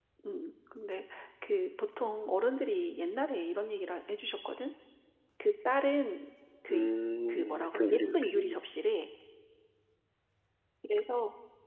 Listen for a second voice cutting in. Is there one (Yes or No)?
Yes